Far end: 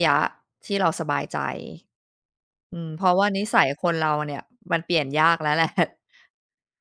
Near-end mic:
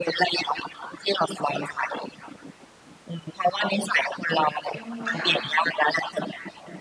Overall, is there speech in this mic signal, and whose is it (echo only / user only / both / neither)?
both